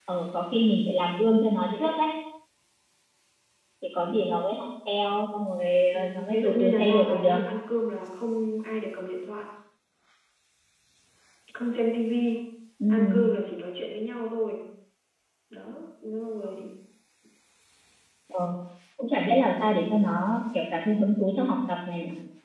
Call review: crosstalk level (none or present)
present